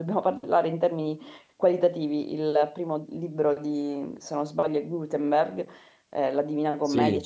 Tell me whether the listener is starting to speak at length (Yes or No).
No